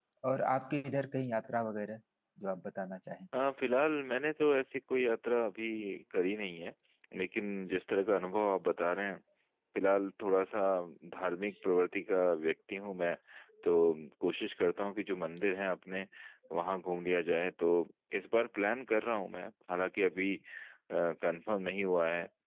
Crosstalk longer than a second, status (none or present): none